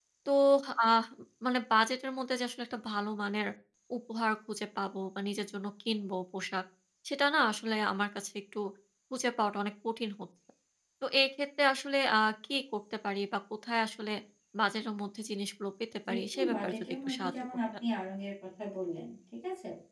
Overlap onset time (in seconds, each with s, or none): 16.0 s